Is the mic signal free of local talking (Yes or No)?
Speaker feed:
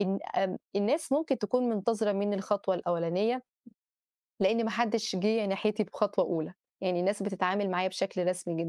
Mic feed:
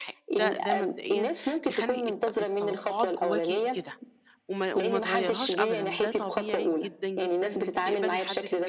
No